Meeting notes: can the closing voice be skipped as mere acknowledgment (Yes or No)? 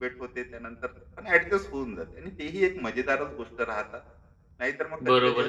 No